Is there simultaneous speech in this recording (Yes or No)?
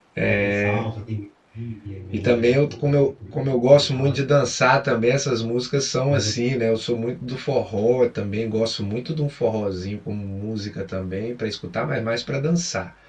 Yes